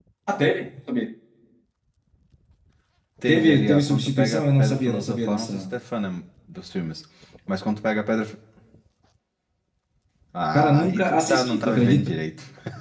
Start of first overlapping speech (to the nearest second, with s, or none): 3 s